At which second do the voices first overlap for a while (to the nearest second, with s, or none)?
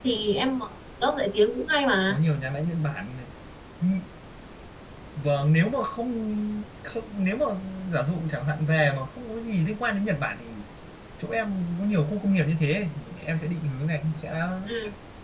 none